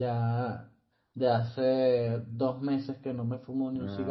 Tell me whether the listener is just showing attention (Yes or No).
No